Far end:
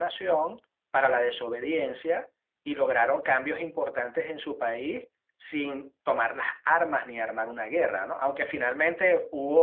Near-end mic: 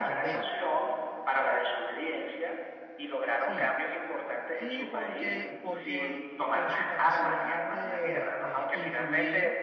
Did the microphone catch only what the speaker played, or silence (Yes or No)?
No